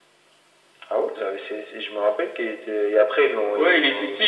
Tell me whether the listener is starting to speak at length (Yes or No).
Yes